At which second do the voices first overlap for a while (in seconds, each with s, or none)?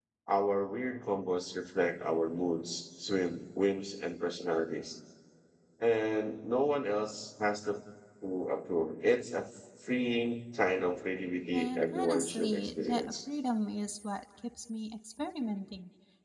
11.5 s